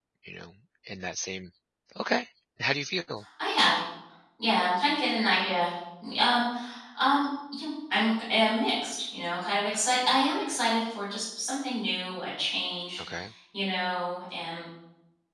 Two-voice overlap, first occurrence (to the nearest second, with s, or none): none